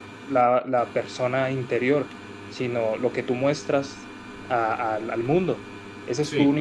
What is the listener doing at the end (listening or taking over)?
listening